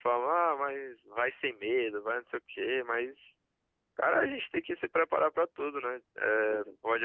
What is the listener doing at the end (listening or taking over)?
listening